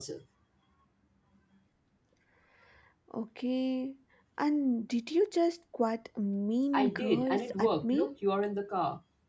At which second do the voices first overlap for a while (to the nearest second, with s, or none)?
7 s